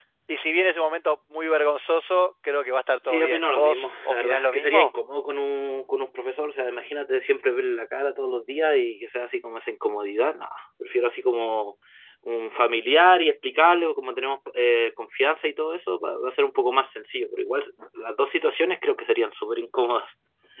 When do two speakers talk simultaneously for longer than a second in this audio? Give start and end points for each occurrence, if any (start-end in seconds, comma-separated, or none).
3.0-4.9